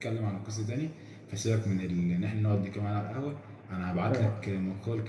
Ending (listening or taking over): listening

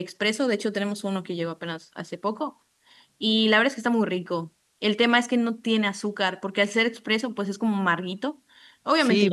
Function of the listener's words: taking over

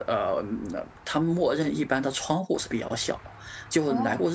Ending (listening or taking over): listening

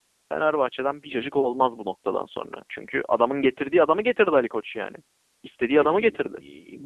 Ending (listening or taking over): taking over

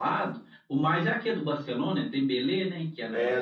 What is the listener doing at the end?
taking over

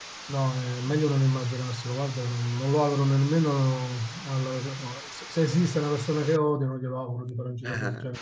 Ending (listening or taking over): taking over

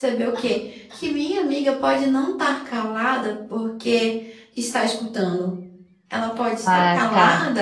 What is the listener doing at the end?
listening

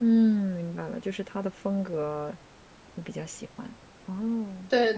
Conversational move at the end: taking over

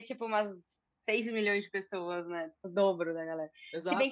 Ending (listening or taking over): taking over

